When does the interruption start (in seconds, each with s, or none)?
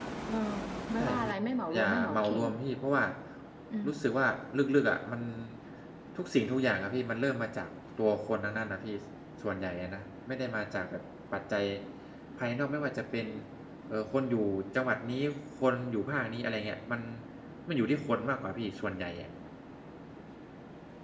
1.0 s